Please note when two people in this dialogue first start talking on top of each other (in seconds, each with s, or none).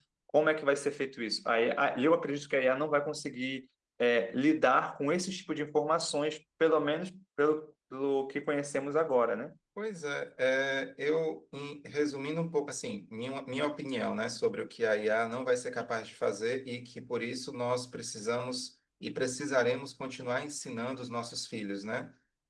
none